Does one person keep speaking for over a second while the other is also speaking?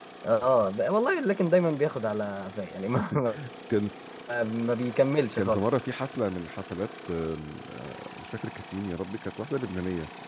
No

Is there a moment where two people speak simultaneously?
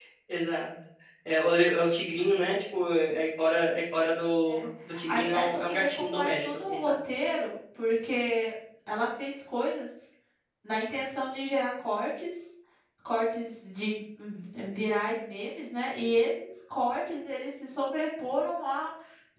Yes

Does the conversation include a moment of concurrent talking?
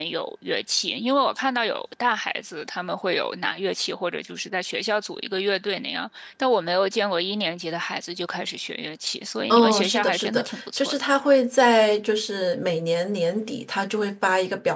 Yes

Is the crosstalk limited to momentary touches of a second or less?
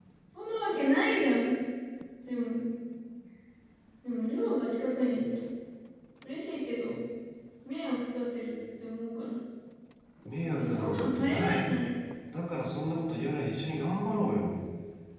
No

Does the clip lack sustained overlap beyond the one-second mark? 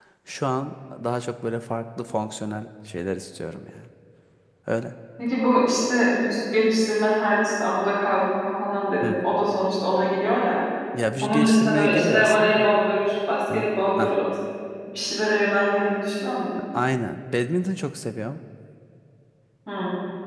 No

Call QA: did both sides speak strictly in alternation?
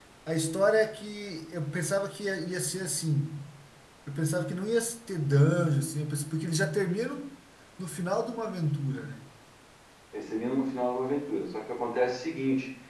Yes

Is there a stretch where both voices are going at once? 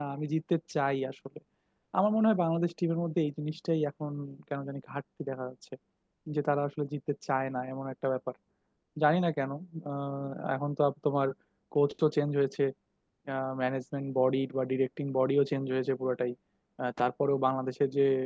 No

